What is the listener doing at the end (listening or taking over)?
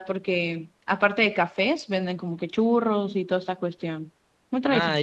taking over